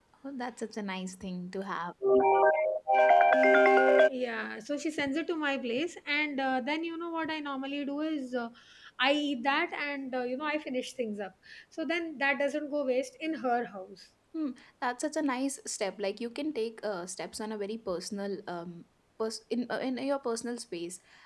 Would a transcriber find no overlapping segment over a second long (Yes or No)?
Yes